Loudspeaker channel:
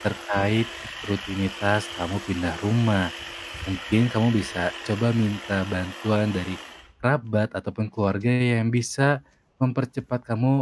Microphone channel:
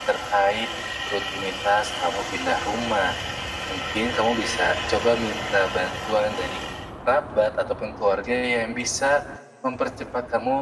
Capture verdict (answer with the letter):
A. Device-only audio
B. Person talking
A